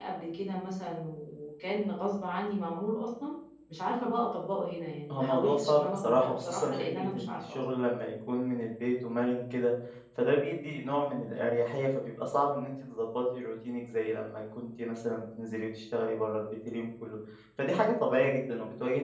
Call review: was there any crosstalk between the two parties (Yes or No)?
Yes